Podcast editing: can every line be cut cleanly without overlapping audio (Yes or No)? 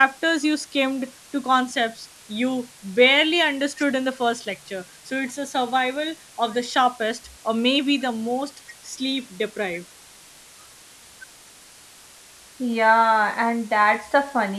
Yes